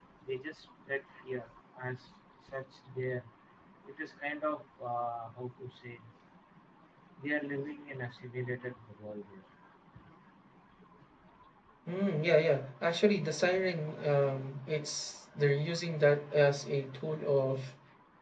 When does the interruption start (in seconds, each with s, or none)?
none